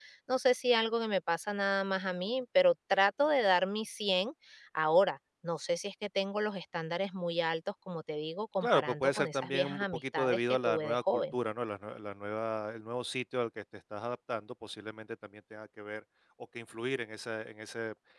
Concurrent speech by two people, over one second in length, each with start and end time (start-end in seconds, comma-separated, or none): 8.6-11.3